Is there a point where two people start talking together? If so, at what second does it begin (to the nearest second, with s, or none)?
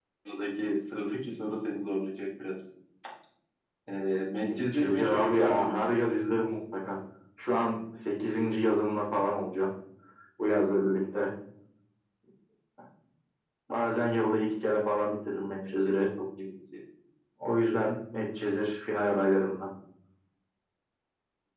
5 s